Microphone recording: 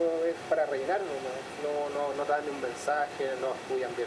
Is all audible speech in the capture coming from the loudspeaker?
Yes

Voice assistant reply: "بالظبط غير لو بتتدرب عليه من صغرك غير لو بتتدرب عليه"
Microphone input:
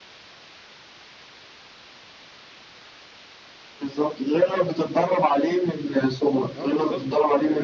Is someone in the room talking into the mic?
Yes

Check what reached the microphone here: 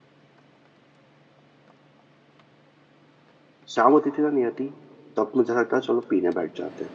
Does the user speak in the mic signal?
Yes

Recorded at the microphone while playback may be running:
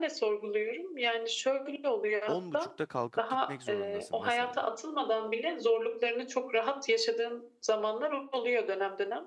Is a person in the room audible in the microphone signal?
Yes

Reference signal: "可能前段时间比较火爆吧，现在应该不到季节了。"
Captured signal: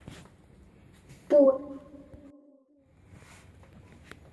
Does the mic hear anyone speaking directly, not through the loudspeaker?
Yes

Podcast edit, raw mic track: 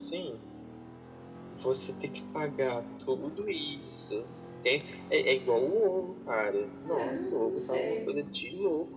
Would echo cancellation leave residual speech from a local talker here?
Yes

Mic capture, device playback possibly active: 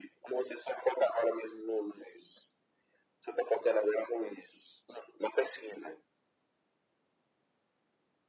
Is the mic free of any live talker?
Yes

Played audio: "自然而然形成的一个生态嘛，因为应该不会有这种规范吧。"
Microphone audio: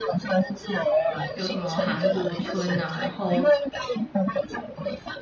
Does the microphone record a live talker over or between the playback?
Yes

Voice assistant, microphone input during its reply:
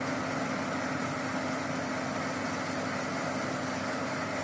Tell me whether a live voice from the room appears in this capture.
No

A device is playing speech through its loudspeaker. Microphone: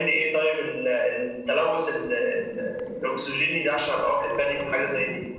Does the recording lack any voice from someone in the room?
Yes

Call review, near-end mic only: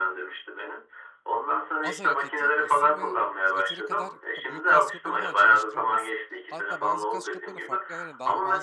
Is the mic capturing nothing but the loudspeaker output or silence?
No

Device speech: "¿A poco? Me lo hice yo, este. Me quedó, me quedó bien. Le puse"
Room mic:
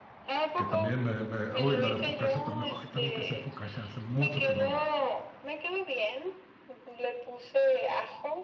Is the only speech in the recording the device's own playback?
No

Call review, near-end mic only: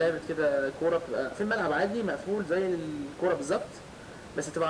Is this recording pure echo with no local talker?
Yes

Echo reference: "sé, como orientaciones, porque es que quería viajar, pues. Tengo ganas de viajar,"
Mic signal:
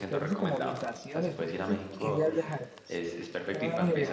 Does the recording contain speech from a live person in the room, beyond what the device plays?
Yes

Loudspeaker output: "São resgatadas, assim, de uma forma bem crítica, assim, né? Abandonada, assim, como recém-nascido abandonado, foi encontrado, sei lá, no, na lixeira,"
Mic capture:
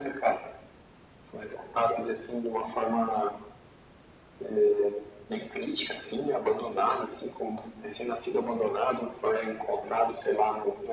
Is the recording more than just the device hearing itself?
No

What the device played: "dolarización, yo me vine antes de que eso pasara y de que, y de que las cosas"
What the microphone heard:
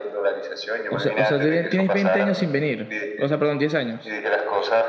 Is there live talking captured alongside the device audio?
Yes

